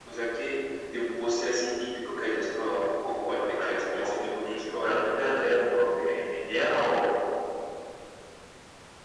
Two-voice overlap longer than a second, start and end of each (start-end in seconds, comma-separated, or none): 3.5-5.0